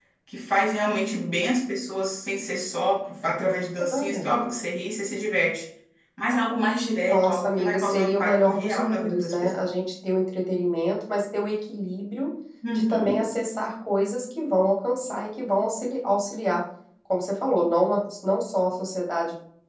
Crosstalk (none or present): present